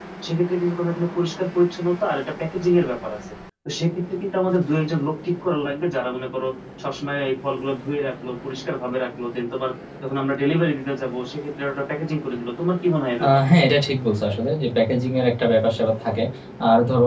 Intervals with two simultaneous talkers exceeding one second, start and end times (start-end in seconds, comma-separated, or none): none